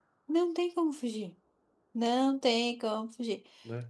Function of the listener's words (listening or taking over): listening